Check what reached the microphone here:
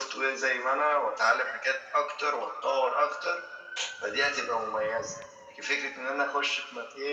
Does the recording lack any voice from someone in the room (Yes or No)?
Yes